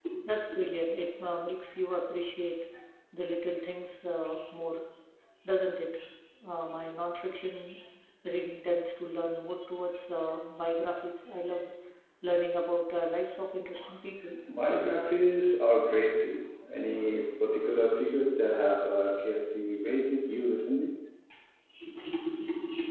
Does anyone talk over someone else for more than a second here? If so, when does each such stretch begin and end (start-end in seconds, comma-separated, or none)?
none